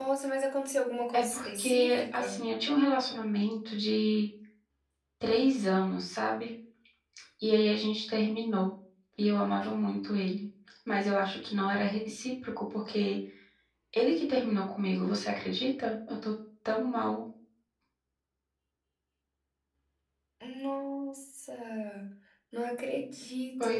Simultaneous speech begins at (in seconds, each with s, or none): 1.1 s